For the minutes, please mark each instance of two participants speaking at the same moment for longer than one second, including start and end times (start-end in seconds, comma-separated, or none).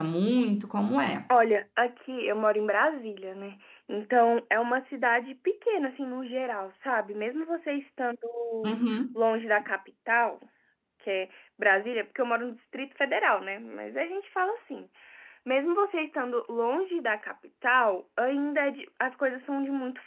none